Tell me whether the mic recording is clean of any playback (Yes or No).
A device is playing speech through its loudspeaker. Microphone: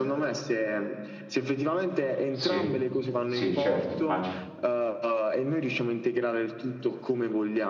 No